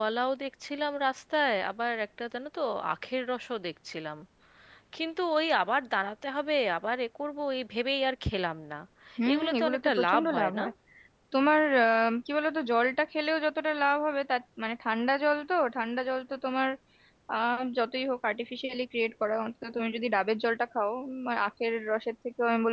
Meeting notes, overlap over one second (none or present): present